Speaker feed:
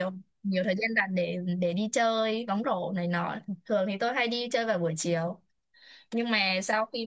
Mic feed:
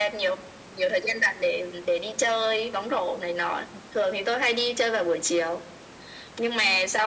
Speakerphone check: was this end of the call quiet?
Yes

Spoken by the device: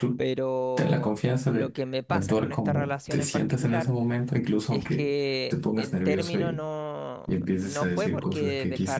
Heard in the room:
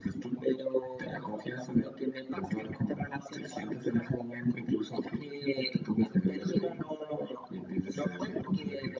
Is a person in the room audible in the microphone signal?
No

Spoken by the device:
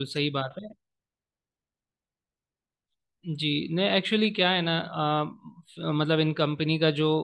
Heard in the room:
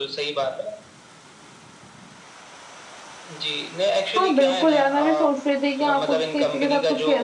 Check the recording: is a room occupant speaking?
Yes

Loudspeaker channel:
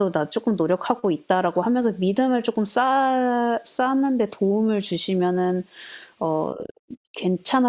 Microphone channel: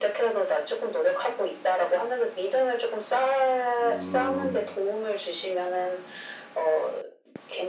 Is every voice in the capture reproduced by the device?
No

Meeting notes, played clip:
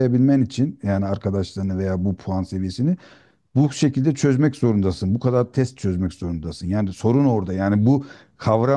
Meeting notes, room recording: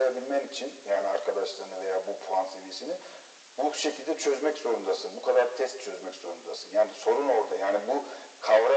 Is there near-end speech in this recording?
No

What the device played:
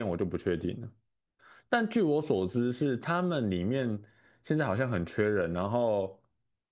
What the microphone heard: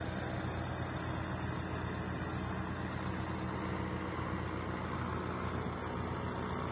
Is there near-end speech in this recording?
No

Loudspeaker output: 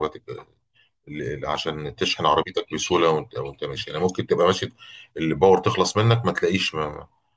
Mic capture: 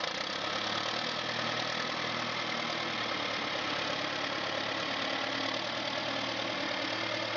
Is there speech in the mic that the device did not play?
No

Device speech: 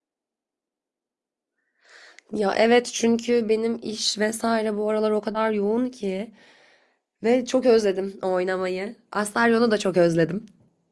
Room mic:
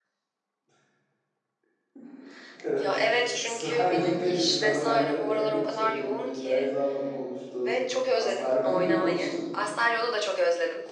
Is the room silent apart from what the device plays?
No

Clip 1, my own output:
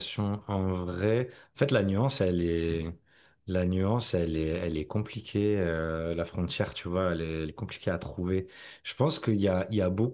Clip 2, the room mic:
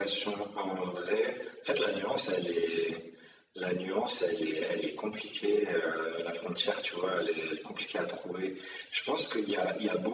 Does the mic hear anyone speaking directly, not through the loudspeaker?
No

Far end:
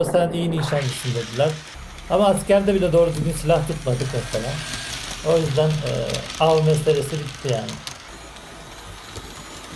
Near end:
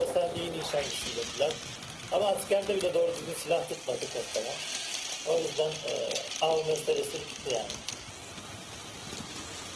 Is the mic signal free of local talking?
Yes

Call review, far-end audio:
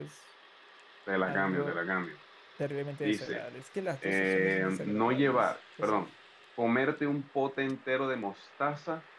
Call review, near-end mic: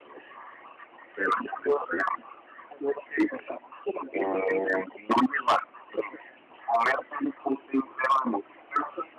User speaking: No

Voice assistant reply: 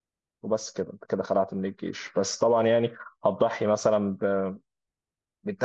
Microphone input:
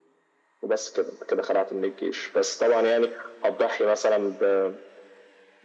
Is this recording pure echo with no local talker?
Yes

